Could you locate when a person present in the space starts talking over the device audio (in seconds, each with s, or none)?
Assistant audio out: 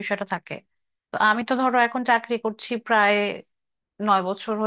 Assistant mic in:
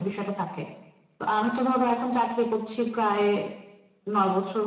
none